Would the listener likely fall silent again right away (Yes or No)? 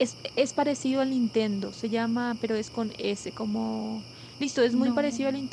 Yes